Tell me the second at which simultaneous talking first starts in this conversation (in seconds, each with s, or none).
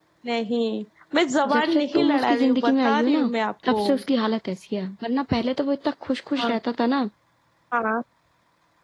1.5 s